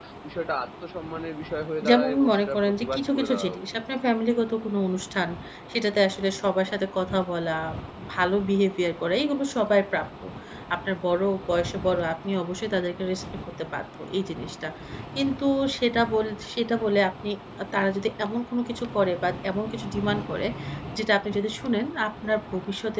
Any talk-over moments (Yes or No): Yes